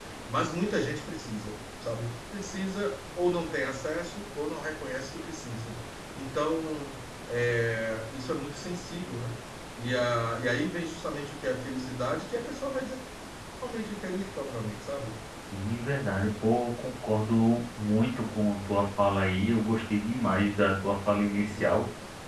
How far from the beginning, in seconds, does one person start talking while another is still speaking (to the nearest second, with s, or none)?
none